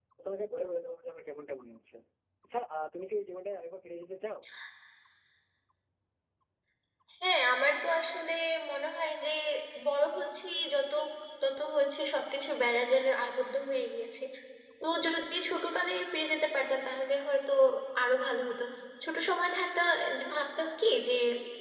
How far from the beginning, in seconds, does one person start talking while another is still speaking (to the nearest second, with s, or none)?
none